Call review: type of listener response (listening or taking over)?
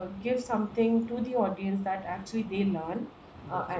listening